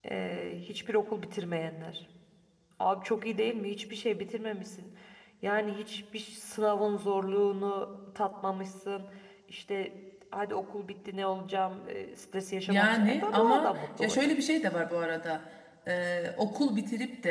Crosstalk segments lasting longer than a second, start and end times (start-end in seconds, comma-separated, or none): 12.7-14.2